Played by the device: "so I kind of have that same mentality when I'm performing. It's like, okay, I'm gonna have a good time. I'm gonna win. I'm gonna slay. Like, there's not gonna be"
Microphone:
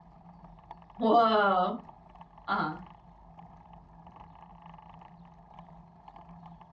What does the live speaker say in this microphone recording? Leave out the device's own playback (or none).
Whoa. Uh-huh.